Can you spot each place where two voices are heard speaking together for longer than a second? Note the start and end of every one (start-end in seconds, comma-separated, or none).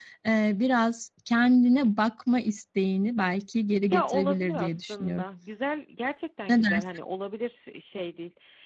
3.9-5.2